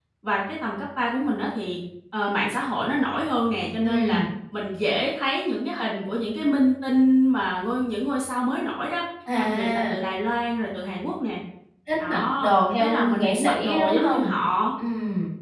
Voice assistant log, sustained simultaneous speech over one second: present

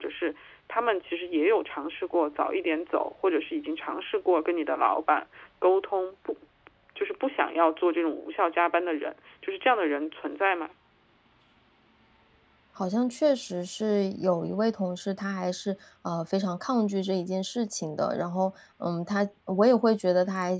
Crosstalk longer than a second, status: none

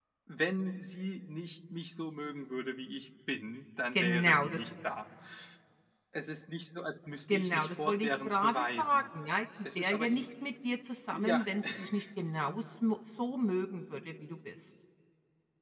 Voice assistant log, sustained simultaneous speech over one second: present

